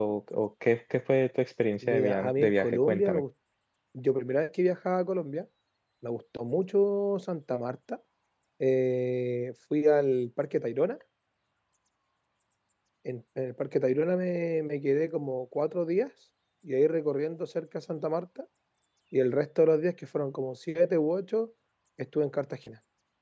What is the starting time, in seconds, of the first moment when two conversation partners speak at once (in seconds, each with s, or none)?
1.8 s